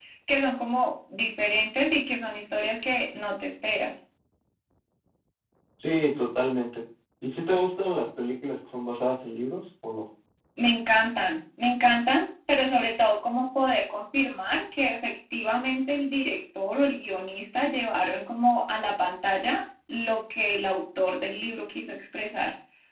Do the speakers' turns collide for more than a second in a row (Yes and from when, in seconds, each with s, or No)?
No